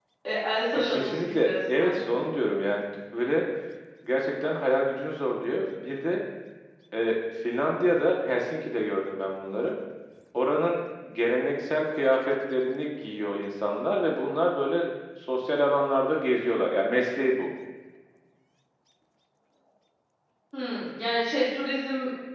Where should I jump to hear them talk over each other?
0.8 s

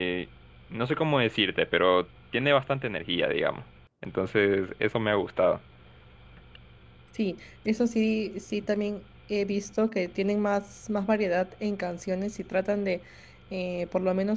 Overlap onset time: none

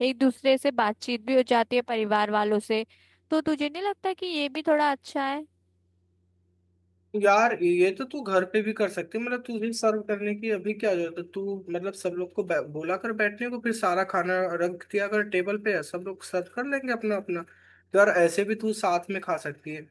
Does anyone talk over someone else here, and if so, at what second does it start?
none

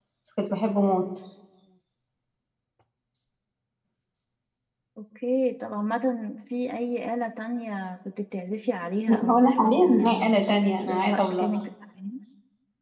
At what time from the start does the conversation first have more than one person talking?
9.1 s

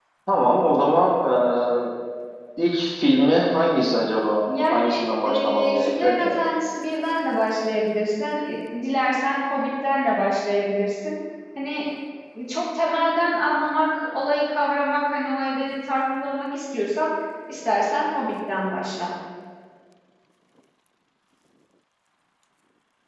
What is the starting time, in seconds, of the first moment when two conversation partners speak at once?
4.5 s

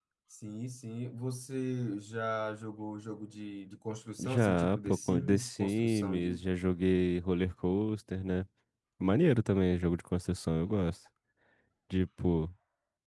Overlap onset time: 4.2 s

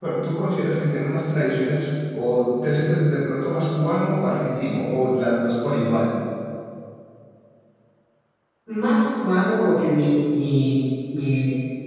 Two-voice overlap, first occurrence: none

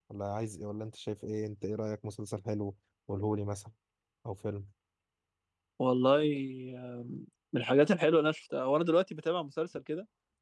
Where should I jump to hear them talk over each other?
none

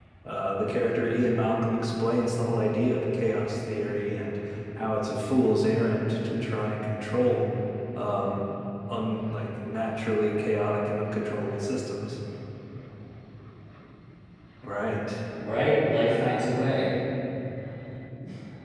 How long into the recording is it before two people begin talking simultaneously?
none

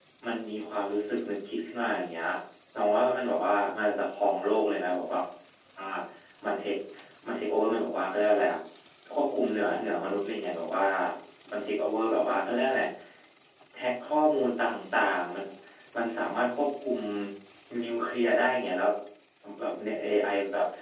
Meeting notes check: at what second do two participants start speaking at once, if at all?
none

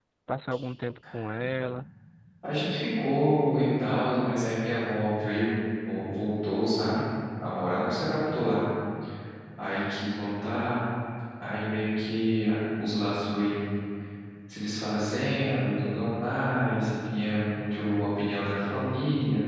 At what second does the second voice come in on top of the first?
none

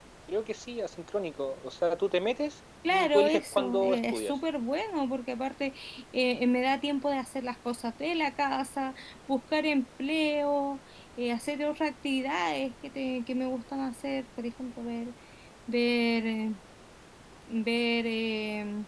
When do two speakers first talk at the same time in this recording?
2.8 s

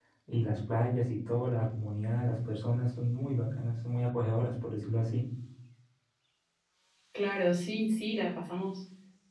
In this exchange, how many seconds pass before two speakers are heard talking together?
none

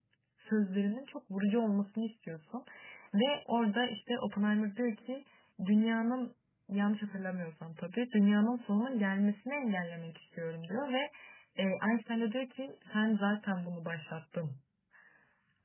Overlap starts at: none

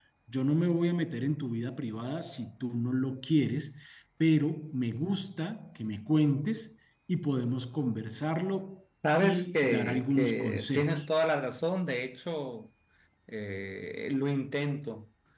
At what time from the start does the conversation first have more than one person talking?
9.0 s

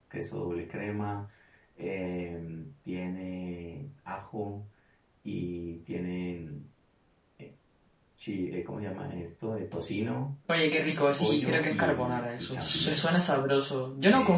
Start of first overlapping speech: 11.2 s

